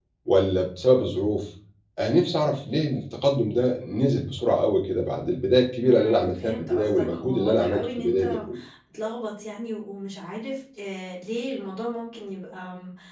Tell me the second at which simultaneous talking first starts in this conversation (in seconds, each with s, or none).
5.8 s